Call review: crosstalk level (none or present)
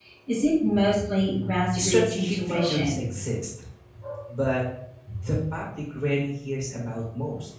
present